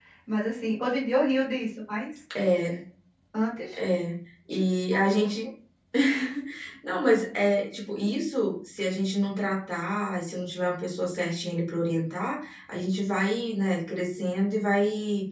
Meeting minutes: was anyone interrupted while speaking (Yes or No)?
No